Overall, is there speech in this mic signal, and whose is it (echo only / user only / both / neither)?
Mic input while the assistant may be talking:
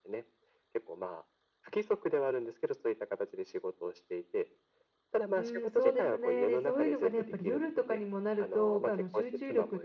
both